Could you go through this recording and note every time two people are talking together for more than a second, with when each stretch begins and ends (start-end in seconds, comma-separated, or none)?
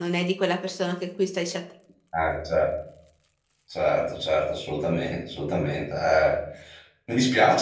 none